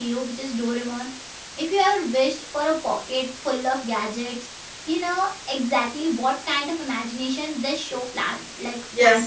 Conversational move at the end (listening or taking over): taking over